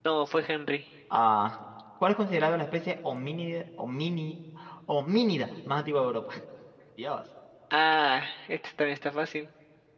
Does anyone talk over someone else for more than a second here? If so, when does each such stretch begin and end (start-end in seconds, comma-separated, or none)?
none